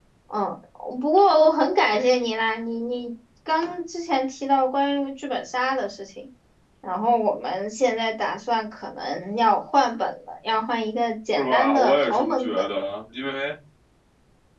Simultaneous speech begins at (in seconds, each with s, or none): 11.4 s